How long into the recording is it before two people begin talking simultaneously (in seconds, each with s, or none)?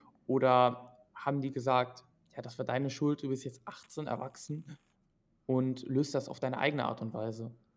none